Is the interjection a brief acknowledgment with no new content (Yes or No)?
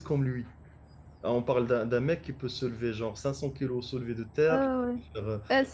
No